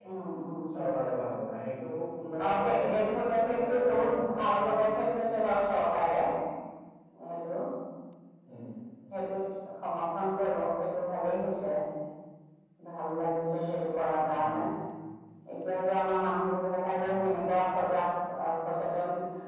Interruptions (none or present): present